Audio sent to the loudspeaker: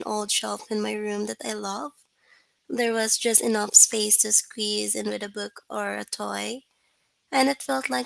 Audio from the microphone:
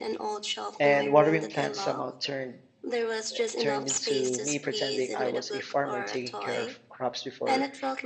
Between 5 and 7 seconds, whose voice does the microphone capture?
both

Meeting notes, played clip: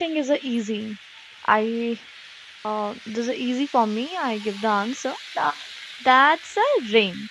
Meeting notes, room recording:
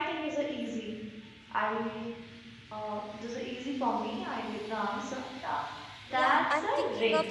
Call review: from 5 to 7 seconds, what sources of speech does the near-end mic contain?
both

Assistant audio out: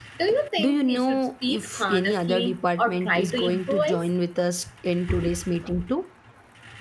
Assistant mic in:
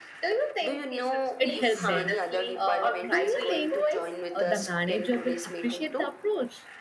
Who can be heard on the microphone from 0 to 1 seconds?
echo only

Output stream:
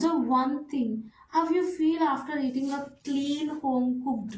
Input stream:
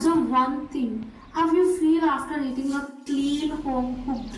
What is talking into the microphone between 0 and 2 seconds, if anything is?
echo only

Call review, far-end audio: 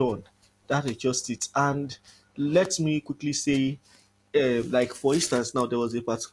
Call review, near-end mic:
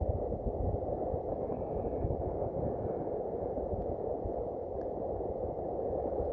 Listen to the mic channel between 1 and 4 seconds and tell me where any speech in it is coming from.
neither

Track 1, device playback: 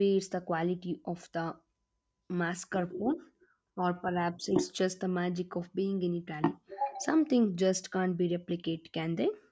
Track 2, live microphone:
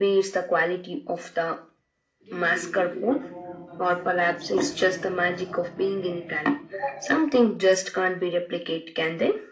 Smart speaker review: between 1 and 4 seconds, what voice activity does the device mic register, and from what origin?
both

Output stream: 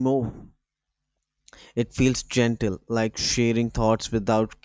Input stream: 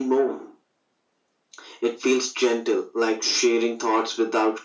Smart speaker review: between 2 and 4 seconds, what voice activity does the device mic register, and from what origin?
echo only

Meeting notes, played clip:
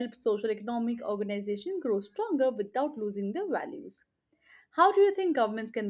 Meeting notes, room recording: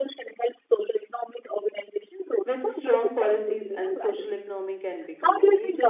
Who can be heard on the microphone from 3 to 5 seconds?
both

